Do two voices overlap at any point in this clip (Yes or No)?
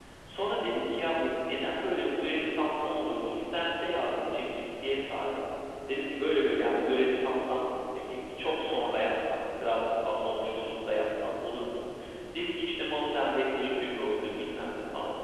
No